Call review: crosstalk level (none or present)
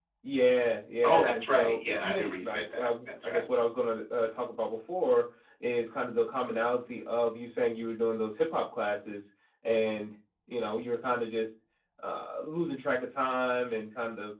present